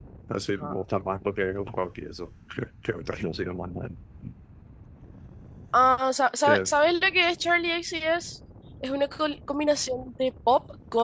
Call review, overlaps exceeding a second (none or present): none